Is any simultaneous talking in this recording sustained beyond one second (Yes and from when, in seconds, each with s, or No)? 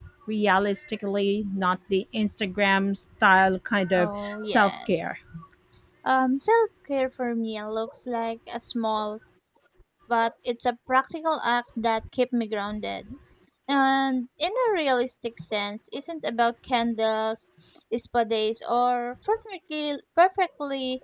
Yes, from 3.9 s